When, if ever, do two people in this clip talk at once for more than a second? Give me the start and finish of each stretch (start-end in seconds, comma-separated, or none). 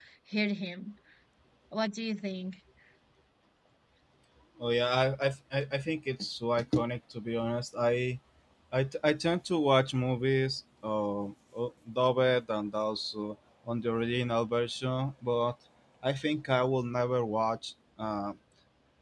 none